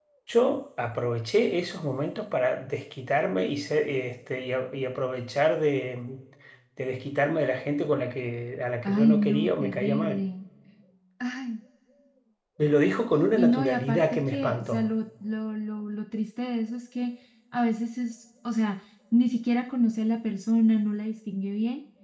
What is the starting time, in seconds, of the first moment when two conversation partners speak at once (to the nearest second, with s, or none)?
9 s